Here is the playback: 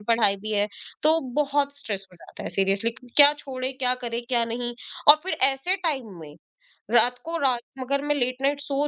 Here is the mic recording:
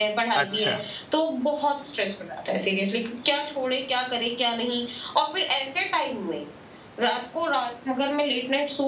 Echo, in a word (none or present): present